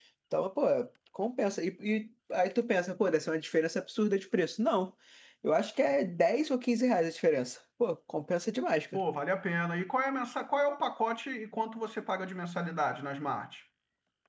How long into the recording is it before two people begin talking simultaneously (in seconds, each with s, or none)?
none